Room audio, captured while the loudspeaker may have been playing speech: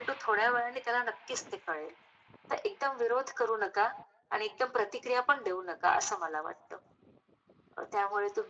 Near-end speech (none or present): none